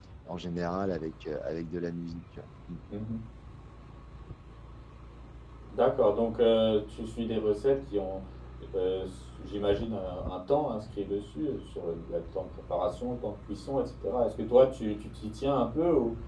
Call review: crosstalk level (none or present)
none